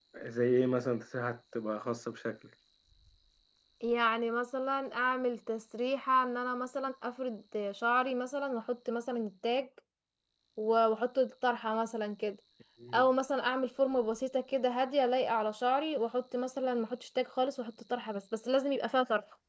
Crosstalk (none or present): none